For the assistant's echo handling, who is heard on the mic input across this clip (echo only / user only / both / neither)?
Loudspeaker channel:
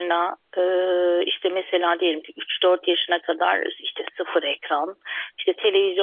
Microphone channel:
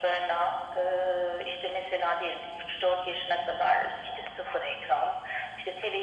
echo only